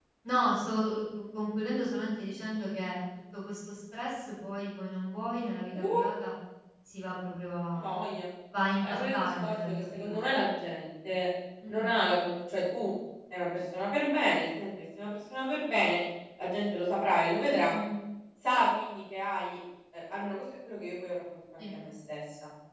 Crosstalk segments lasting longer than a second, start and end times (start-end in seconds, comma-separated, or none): 8.8-10.2